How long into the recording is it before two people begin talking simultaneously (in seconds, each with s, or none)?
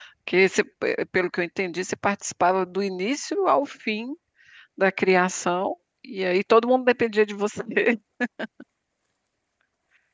none